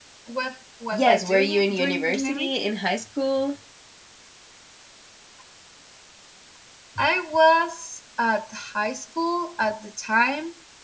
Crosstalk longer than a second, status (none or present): present